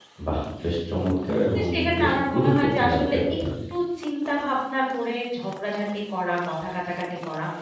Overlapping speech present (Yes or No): Yes